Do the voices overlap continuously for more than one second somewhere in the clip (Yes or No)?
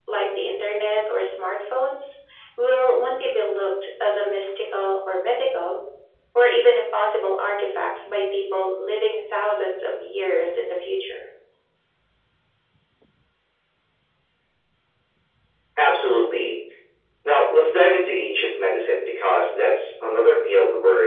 No